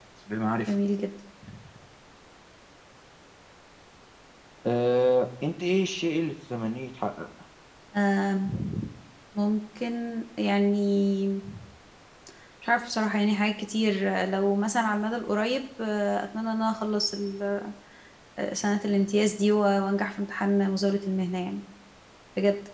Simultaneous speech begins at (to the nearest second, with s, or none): none